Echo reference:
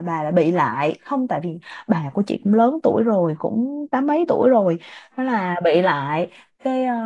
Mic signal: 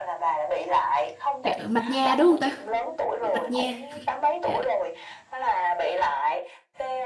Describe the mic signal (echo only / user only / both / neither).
both